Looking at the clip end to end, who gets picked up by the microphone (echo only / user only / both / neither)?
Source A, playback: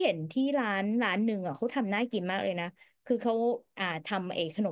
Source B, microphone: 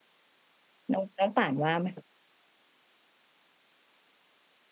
user only